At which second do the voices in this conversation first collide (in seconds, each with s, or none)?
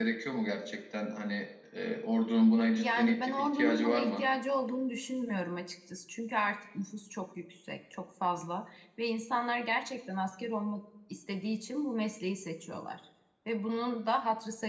2.8 s